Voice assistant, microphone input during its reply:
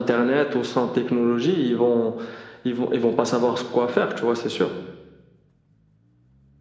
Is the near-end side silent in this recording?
Yes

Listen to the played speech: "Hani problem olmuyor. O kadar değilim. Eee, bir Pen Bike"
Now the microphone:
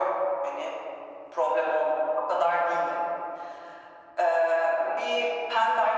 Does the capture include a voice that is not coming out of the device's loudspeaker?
No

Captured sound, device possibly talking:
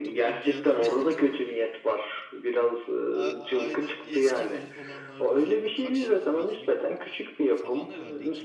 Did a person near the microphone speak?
Yes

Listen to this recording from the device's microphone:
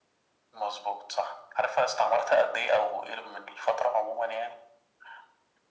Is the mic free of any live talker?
Yes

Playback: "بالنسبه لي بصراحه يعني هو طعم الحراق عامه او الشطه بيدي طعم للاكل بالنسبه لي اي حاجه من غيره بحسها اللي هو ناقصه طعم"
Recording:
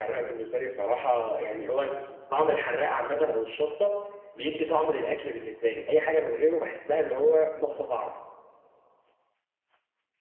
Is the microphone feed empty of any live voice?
Yes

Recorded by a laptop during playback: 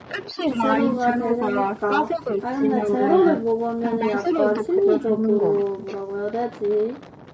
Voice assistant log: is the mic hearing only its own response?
No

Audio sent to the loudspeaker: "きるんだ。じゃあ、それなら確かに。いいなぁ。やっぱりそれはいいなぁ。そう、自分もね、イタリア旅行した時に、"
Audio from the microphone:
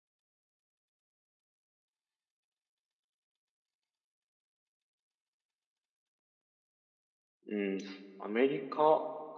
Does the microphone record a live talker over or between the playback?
Yes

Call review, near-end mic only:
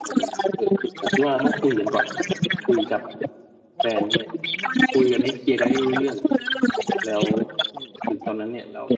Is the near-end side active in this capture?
Yes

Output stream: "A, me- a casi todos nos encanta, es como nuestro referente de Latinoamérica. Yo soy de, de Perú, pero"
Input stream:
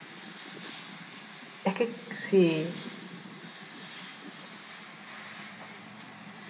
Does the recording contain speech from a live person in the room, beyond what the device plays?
Yes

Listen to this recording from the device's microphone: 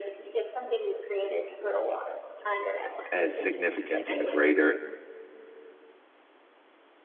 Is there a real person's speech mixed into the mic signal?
Yes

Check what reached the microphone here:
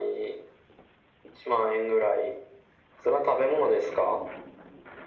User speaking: No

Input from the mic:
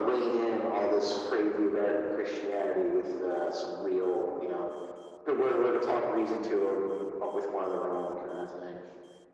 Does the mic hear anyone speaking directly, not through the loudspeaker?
No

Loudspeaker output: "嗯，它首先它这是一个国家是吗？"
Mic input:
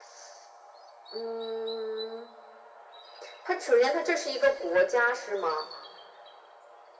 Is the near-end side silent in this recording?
Yes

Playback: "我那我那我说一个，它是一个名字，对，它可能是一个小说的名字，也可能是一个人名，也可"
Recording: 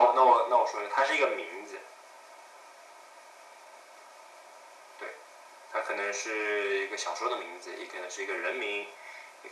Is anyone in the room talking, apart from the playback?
No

